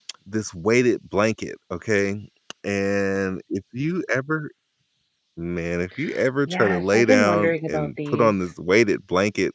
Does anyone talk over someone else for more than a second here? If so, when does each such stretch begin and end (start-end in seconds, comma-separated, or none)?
6.5-8.4